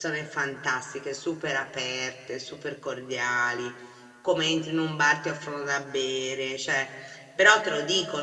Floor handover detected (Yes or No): No